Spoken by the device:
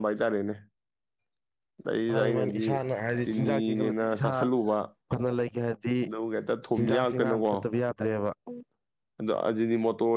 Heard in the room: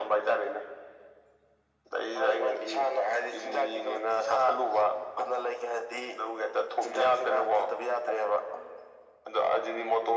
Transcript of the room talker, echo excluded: none

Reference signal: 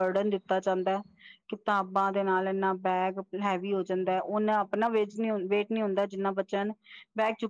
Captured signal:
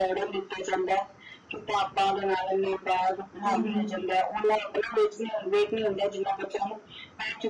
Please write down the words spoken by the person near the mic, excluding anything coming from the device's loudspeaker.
ਹਮ ਹਮ

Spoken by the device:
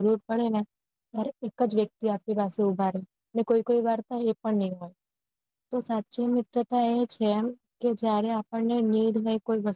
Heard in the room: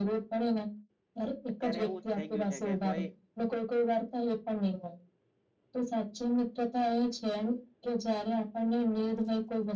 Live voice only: અત્યારે એવું જ થઈ ગયું છે કે કોઈ

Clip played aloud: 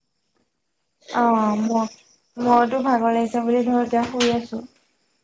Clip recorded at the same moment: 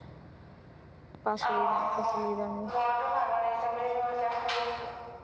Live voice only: পাচলি নাই পাচলি দামে,

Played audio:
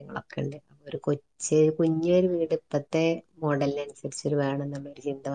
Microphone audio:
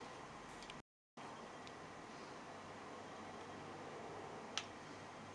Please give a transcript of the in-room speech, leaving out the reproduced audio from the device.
none

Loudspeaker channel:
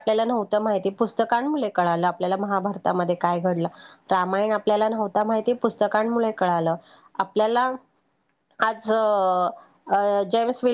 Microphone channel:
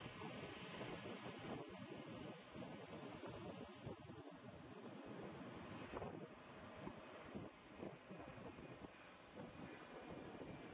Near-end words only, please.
none

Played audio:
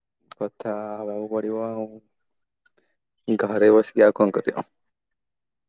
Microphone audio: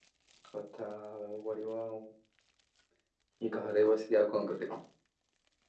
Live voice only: none

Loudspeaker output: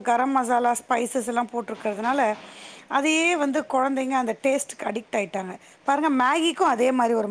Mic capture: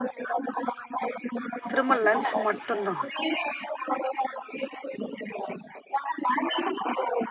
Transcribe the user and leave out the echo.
திரும்ப லன்ச் மட்டுதா

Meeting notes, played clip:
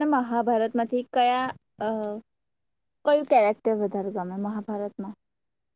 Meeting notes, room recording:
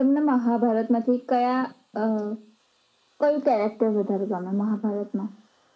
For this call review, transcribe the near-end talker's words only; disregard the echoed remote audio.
none

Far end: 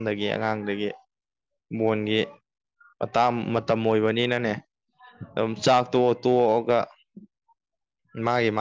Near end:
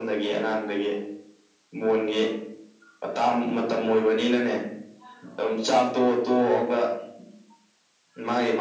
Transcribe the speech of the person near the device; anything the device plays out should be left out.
none

